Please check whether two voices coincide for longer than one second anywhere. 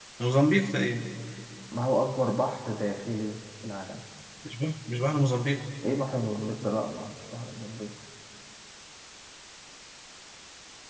No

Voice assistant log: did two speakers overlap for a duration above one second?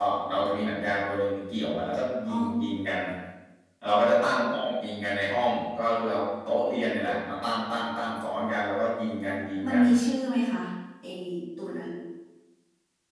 No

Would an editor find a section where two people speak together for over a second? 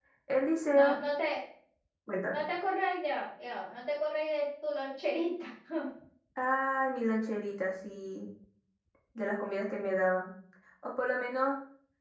No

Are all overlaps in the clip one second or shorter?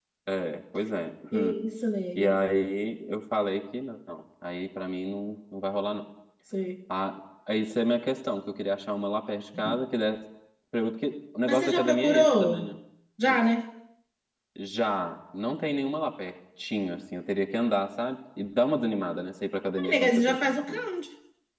No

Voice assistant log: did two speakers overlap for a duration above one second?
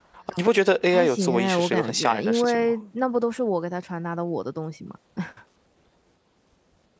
Yes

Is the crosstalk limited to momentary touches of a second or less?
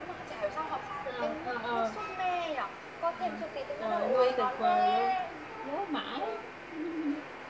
No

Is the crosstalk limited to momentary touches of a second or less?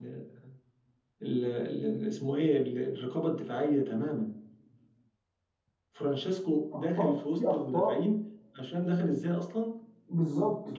No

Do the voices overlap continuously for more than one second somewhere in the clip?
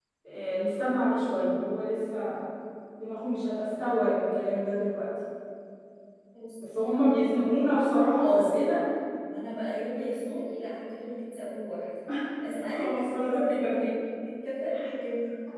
Yes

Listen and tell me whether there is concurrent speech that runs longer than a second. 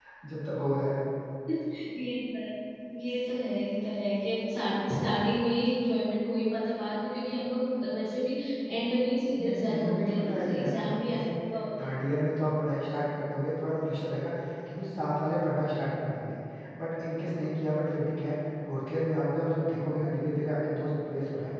Yes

